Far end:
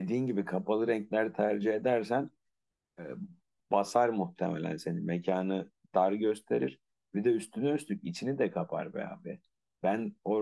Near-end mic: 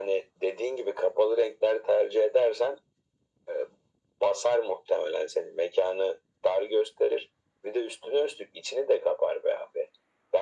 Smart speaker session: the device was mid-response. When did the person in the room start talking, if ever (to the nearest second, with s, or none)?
none